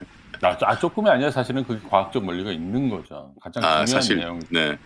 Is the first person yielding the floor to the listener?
Yes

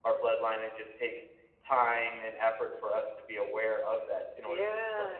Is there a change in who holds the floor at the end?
Yes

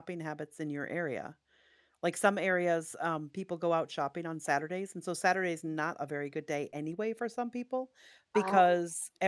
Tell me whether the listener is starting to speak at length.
No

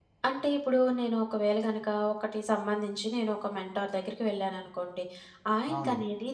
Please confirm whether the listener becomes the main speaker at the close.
No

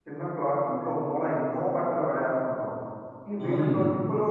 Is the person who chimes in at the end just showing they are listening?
Yes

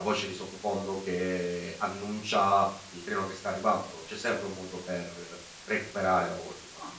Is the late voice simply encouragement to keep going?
No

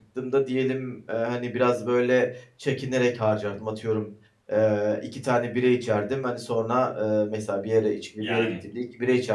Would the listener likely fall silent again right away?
Yes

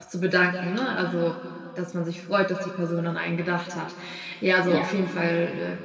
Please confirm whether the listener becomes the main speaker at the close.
No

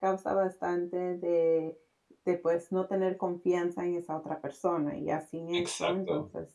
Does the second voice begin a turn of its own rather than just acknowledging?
No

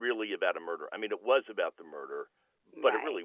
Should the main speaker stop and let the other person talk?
No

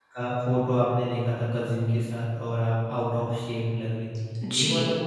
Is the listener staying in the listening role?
No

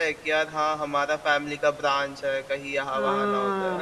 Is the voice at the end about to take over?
Yes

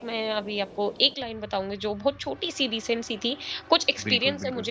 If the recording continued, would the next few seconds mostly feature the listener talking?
No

